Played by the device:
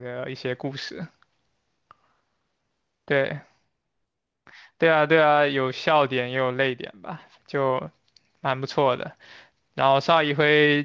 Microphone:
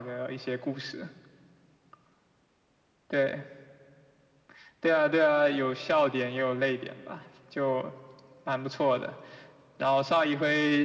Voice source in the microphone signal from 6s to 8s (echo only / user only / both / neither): echo only